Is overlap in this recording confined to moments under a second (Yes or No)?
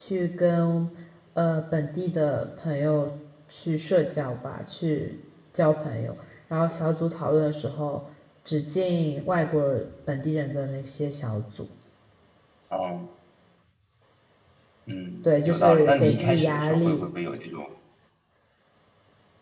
No